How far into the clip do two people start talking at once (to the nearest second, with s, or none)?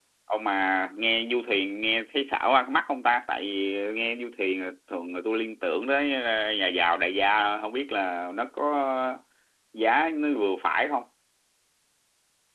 none